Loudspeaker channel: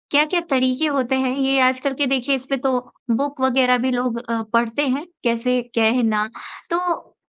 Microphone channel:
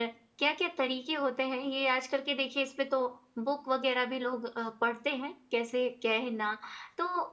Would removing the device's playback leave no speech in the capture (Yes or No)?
Yes